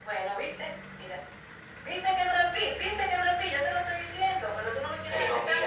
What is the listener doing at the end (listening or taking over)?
taking over